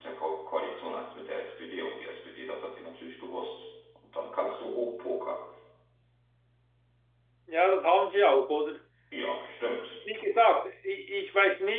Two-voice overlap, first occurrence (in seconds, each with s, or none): none